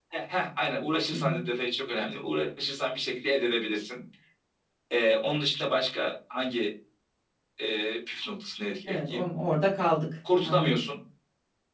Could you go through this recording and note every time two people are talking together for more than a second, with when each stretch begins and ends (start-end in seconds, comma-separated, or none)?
none